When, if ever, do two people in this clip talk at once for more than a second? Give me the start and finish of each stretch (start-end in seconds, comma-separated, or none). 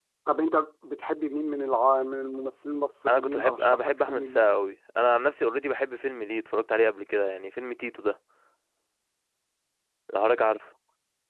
3.1-4.5